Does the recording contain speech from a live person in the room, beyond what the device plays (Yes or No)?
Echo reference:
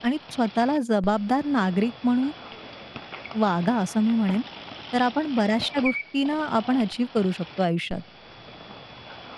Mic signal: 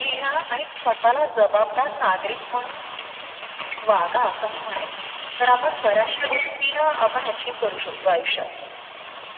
No